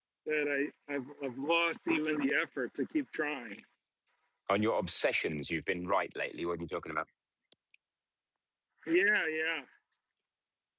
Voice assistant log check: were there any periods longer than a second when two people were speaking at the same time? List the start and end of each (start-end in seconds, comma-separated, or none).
none